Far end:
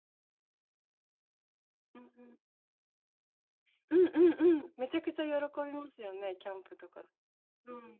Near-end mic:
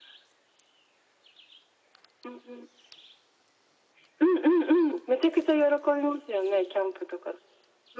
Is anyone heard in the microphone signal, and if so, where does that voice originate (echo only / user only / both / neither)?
echo only